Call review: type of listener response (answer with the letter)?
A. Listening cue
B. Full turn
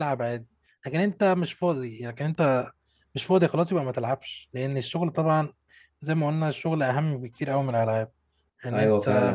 B